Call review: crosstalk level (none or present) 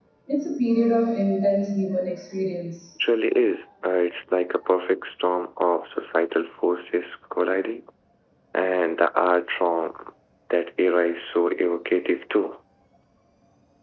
none